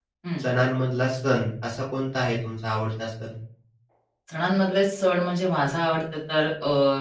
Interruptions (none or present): none